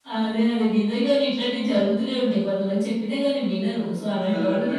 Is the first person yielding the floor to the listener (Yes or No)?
No